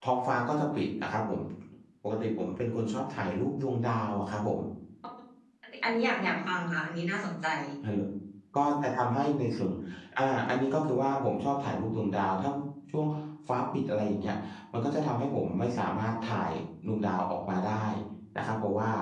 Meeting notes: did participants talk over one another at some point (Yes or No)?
No